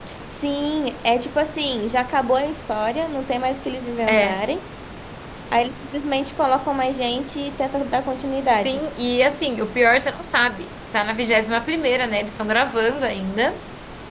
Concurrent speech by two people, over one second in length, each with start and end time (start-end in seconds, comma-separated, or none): none